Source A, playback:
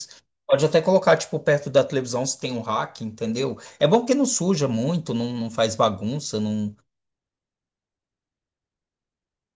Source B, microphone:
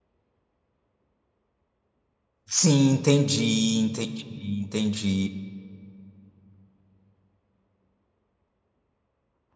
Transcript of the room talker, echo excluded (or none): sim, entendi, entendi, entendi.